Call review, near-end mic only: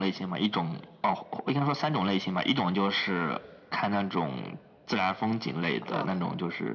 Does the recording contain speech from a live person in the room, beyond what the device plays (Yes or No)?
Yes